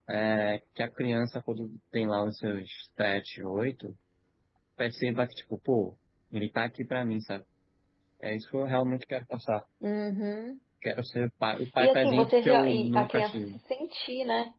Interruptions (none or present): present